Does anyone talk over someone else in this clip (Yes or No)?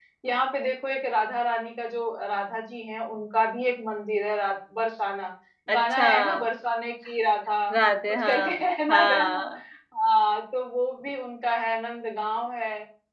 Yes